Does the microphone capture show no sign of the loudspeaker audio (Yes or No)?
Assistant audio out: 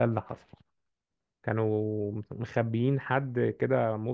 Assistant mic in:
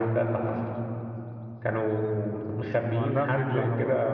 No